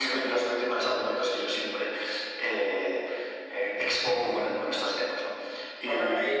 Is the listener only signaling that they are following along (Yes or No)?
No